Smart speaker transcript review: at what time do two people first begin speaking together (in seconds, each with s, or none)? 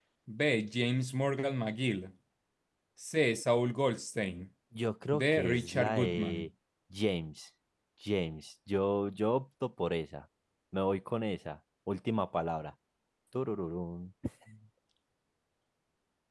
5.1 s